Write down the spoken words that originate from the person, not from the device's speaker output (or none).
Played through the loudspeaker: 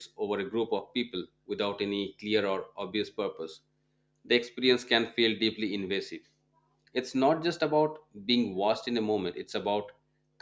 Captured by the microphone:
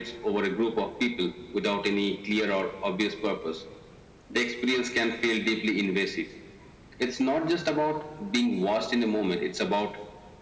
none